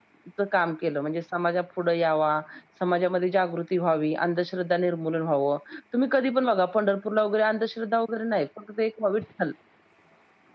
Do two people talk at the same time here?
No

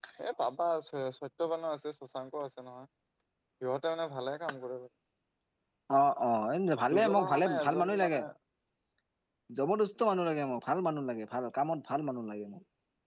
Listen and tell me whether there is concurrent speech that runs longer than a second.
Yes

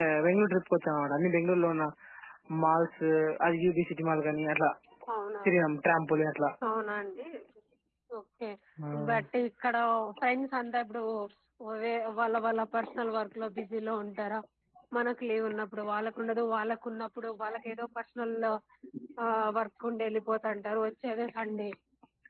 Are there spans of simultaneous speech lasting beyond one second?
No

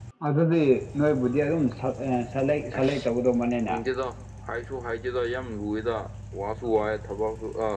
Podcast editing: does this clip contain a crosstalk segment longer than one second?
No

